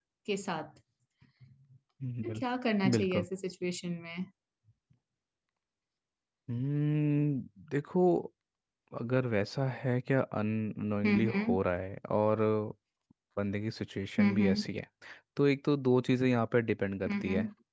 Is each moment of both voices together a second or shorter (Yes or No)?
Yes